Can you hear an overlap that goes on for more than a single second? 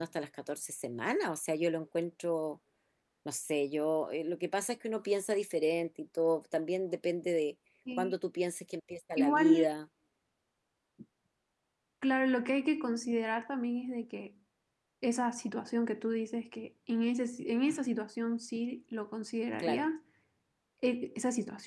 No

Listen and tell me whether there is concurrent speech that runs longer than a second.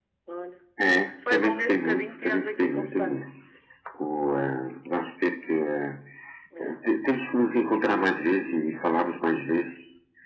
Yes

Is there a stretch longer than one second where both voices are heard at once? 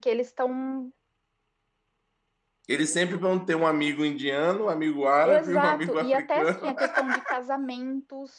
Yes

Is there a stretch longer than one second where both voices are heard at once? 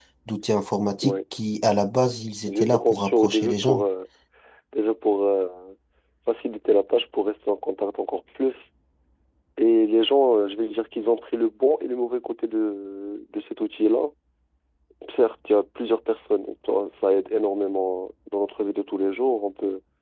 Yes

